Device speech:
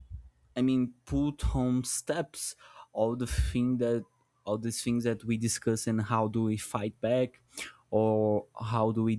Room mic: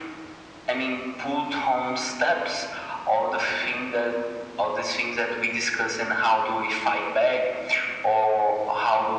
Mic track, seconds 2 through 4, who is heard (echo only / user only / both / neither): echo only